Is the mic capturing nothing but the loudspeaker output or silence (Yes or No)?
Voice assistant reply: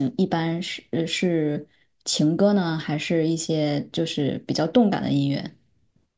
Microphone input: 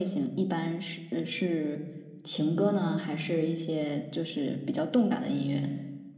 Yes